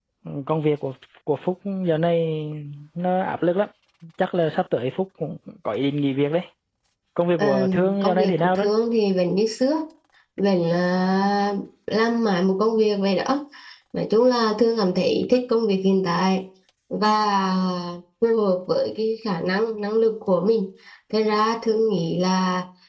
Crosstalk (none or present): present